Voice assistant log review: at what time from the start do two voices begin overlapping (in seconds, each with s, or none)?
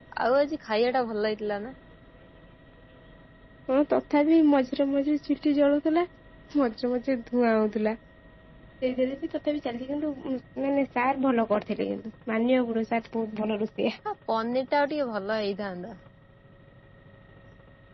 none